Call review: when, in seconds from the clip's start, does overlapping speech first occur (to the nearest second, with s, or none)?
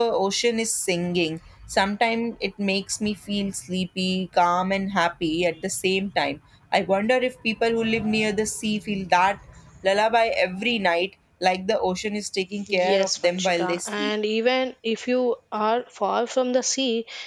13 s